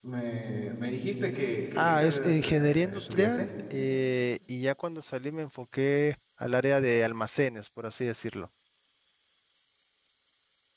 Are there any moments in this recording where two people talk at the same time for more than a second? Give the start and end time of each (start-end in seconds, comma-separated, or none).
1.8-3.5